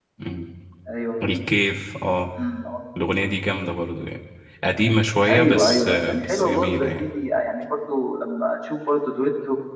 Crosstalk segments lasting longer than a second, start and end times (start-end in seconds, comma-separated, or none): 5.3-7.0